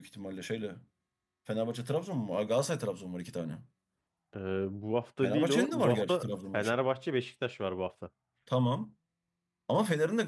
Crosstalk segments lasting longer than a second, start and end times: 5.2-6.7

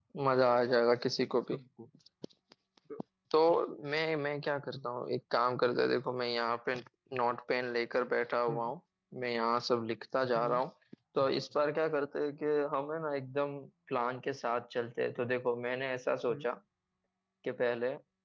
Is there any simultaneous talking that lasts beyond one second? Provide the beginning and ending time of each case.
none

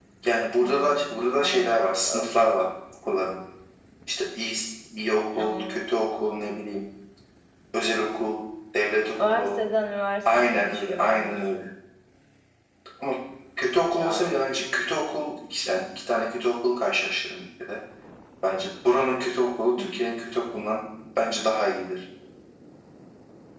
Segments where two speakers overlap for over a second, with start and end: 0.6-2.2, 10.3-11.7

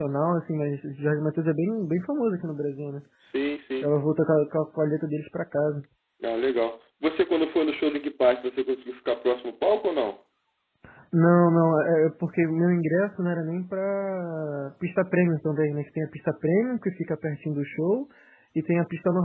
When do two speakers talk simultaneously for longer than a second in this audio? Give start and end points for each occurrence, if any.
none

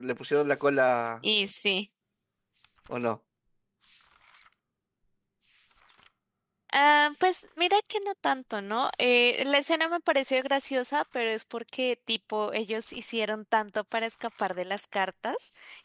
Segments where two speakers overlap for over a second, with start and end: none

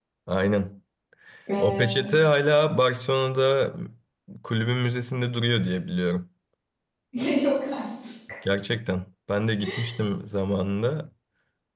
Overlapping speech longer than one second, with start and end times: none

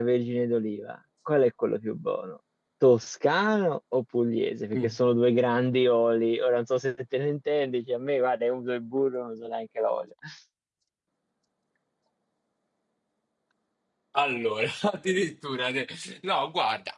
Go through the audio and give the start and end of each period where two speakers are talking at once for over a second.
none

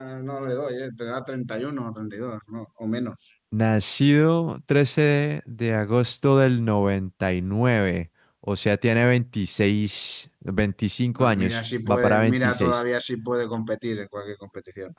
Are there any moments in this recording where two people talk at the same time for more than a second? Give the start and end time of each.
11.2-12.8

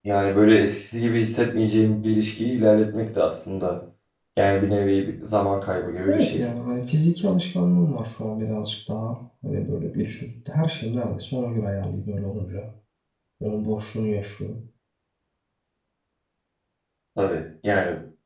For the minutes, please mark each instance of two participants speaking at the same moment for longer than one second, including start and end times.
none

